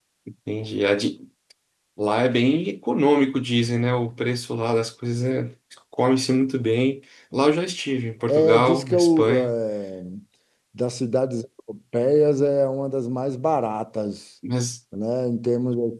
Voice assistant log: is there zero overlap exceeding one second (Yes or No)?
No